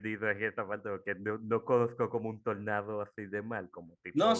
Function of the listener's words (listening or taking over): taking over